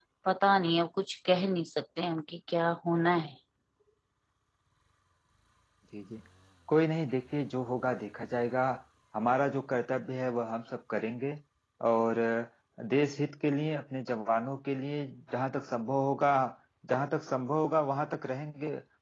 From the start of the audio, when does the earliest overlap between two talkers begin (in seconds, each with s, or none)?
none